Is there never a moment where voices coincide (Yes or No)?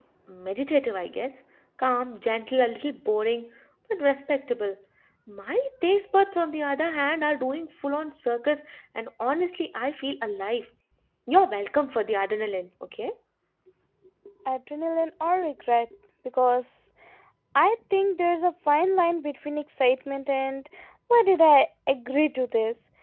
Yes